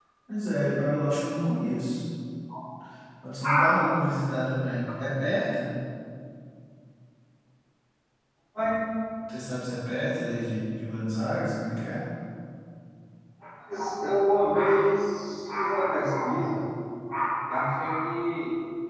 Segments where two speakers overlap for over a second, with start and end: none

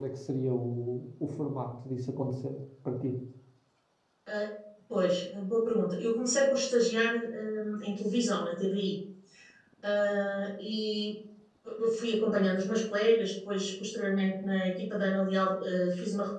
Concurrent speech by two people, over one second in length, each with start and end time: none

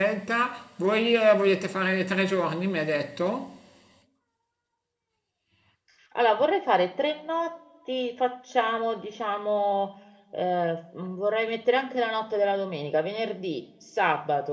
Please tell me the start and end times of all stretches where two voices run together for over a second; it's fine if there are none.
none

